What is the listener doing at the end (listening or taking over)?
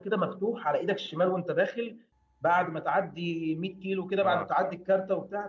listening